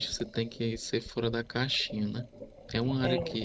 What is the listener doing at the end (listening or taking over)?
listening